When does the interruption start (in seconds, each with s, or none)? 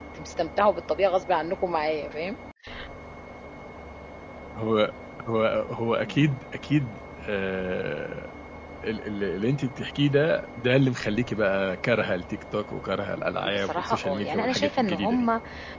13.4 s